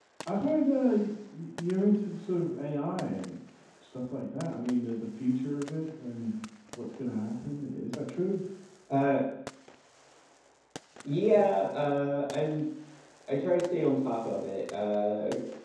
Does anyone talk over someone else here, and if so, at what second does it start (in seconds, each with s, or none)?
none